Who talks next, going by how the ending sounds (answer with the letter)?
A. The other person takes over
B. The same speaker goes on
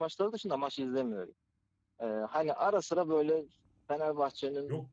B